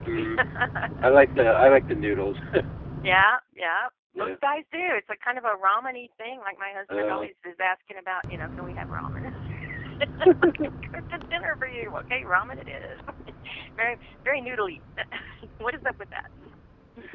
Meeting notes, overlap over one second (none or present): none